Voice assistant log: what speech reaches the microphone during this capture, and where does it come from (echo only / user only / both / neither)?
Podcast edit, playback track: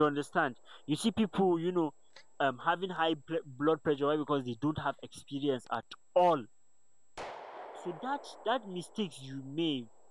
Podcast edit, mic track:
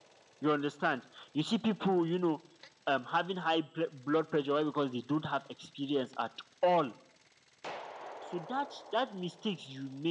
echo only